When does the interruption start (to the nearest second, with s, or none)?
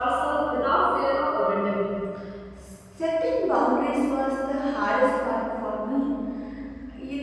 none